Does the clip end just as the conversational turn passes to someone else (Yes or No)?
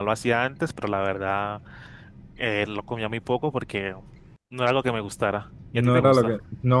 Yes